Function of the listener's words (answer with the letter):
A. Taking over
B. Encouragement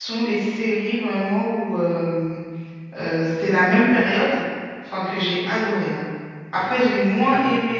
B